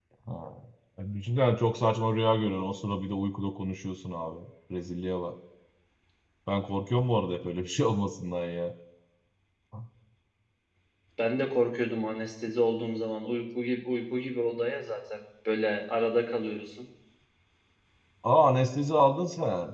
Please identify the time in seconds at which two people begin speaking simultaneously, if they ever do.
none

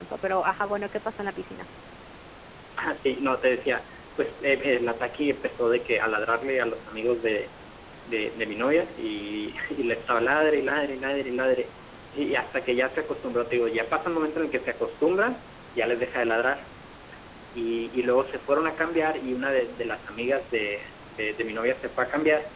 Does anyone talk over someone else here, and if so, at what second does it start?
none

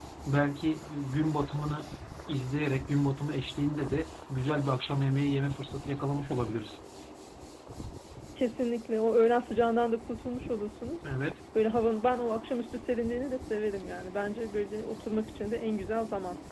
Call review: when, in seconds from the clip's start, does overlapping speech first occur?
none

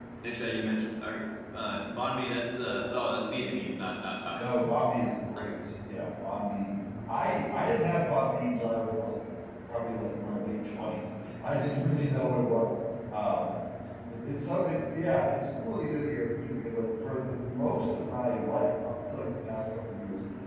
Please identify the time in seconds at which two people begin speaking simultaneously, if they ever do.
none

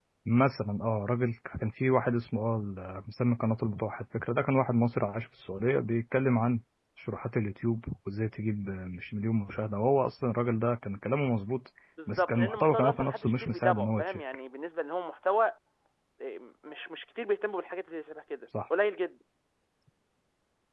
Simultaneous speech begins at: 12.0 s

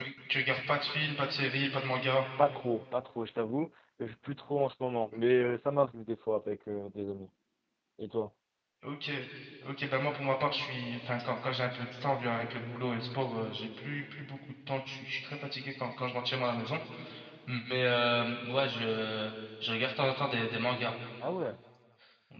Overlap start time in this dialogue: none

